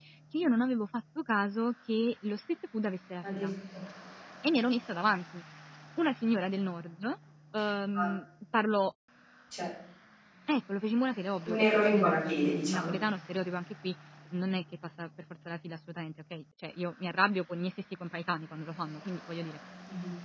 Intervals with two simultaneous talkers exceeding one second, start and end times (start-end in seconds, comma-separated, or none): 11.5-12.9